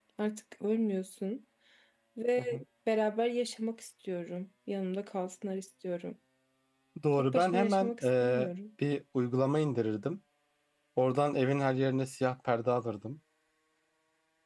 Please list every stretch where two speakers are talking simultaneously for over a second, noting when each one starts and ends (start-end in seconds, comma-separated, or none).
7.1-8.5